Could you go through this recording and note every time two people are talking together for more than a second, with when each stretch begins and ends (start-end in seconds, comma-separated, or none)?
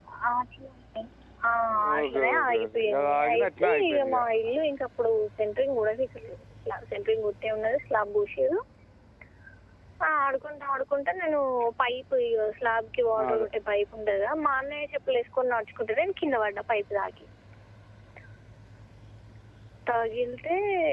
2.0-4.2